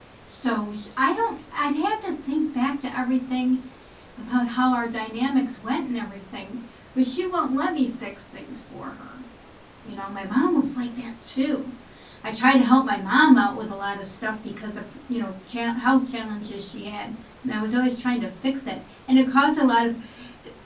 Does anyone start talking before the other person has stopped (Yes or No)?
No